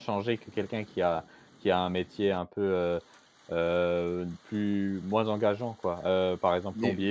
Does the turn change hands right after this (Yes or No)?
No